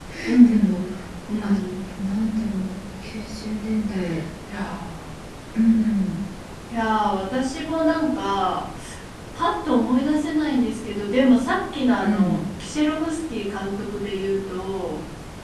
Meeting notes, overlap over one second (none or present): none